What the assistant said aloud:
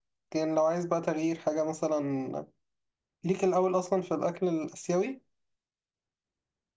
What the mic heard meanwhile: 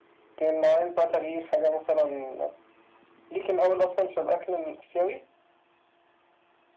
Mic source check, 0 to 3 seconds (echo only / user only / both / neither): echo only